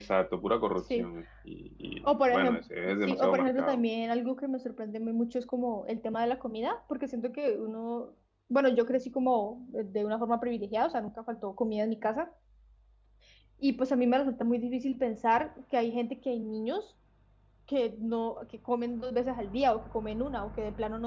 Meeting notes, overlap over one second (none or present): present